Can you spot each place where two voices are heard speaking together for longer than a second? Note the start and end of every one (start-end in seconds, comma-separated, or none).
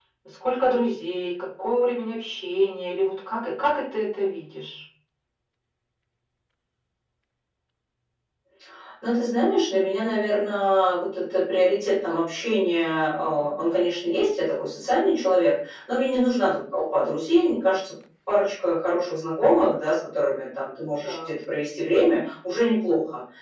none